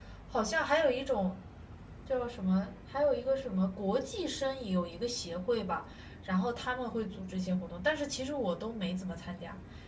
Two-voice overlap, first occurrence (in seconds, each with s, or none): none